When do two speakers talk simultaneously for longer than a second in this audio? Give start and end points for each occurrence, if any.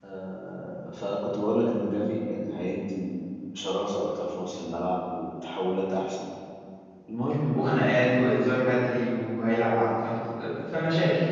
none

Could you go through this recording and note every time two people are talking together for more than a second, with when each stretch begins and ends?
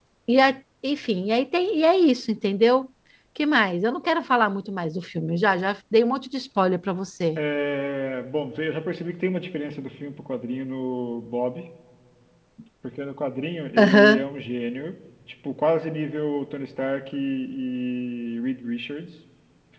none

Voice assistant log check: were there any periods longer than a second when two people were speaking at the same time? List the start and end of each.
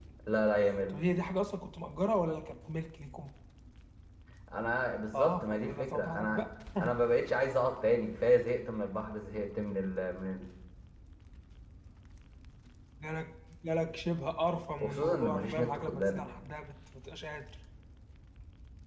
5.1-6.5, 14.8-16.2

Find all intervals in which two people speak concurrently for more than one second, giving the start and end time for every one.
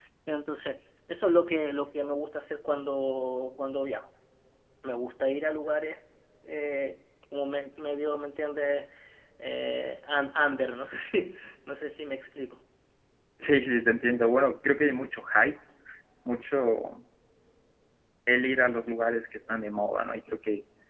none

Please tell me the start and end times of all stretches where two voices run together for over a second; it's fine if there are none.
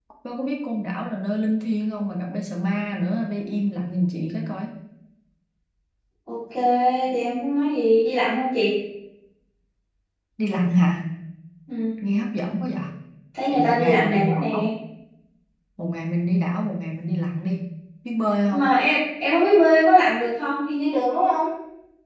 13.5-14.7

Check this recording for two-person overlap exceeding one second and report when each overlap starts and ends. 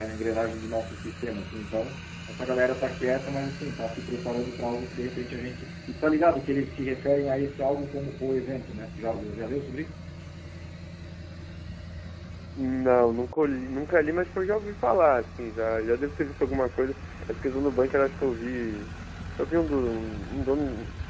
none

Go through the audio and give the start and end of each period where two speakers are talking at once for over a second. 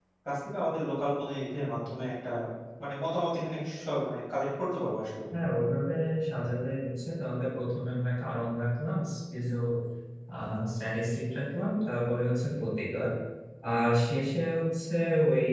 none

